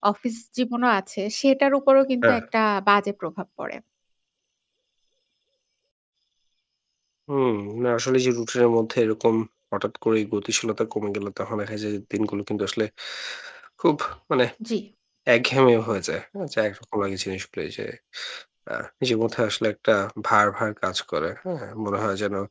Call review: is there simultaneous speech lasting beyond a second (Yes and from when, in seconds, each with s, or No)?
No